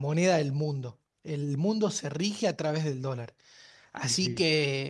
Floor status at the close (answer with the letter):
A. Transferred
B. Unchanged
B